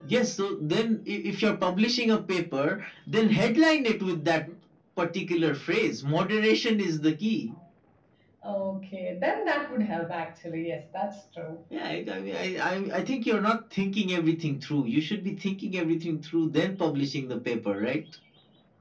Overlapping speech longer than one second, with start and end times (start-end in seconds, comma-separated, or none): none